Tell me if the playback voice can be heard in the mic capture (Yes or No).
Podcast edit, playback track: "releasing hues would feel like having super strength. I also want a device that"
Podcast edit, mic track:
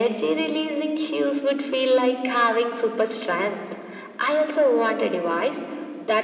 Yes